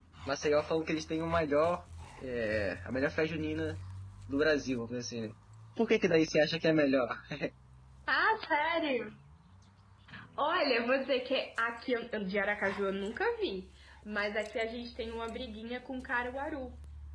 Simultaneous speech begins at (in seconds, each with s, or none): none